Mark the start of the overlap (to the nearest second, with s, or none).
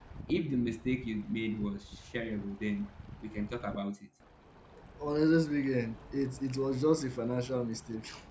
none